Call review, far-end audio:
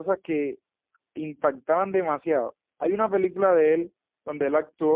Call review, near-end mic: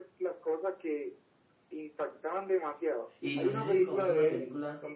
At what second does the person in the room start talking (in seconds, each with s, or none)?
3.2 s